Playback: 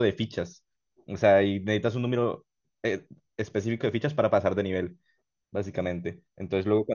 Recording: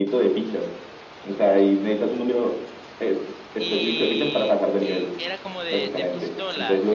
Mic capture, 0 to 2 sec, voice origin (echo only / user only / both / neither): echo only